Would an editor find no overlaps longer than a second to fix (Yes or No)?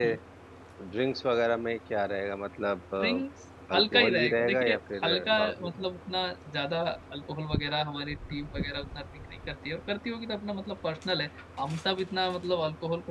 No